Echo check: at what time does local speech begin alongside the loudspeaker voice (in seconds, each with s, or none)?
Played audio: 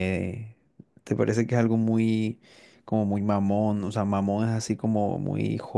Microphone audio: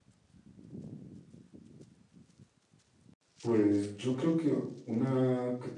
3.4 s